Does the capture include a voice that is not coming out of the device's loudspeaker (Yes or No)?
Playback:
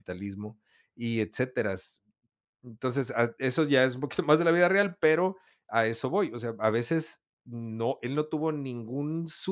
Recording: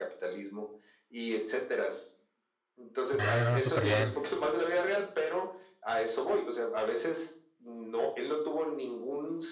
Yes